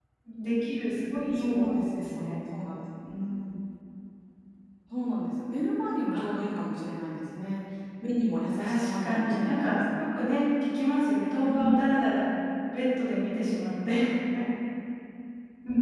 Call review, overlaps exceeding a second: present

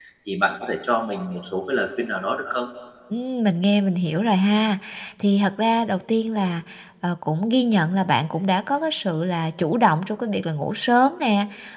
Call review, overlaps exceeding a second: none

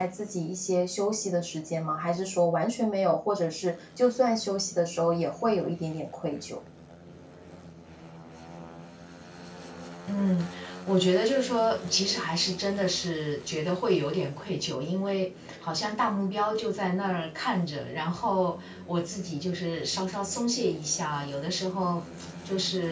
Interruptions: none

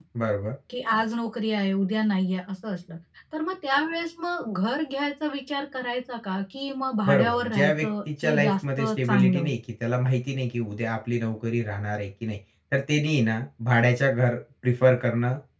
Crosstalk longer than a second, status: present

